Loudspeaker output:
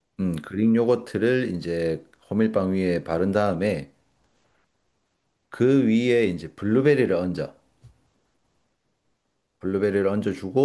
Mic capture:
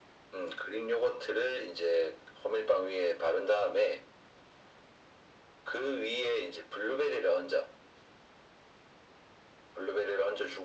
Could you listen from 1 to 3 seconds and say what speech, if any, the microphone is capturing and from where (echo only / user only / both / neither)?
echo only